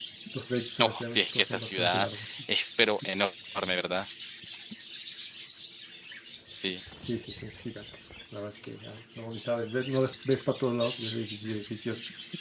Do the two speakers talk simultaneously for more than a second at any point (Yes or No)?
Yes